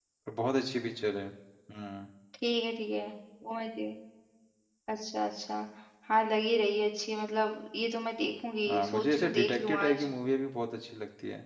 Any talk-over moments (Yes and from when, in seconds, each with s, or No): Yes, from 8.7 s